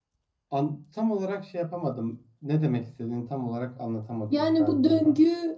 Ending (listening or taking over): taking over